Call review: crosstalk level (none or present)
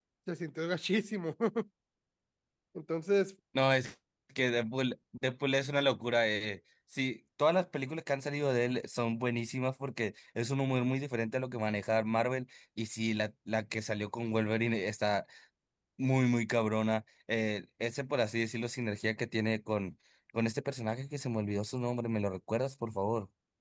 none